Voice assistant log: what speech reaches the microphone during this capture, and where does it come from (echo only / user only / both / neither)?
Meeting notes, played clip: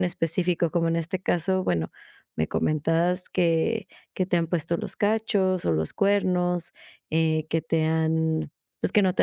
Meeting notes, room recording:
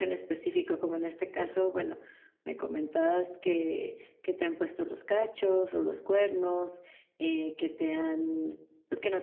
echo only